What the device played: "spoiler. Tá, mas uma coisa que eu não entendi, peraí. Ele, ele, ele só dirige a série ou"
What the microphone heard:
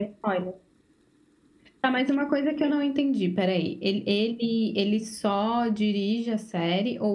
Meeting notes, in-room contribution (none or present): none